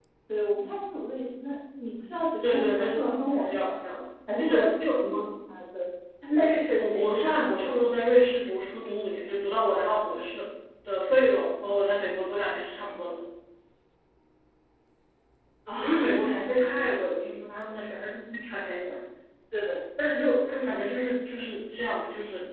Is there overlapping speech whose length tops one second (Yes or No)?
Yes